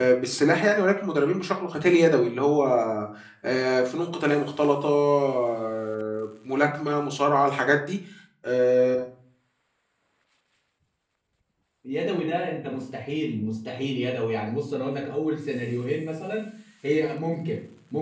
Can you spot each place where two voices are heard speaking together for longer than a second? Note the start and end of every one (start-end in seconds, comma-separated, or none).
none